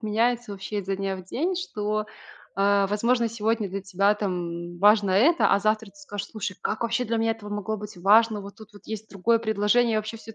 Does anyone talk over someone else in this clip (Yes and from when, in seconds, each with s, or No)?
No